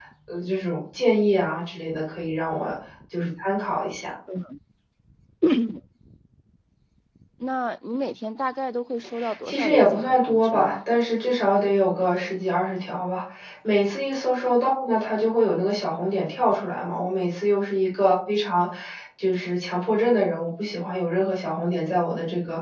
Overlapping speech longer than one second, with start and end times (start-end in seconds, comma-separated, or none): 9.4-10.8